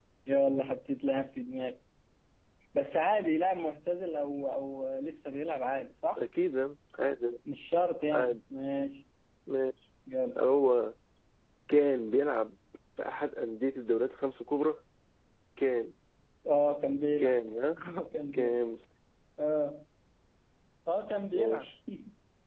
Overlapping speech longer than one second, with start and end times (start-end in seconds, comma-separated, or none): none